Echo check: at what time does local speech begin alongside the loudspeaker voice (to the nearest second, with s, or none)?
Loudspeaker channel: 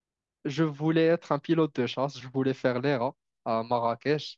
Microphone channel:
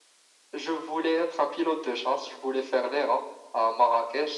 none